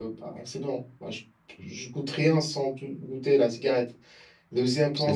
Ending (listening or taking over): listening